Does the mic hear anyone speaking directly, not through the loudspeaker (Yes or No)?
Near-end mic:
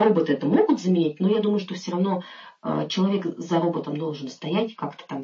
No